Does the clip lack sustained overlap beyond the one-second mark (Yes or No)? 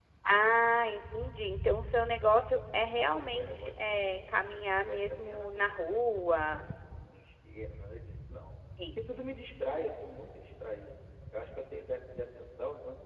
No